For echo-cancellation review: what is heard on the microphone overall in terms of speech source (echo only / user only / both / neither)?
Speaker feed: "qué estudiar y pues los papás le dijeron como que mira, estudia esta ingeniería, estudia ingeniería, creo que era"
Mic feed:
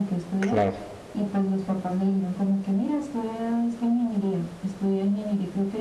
both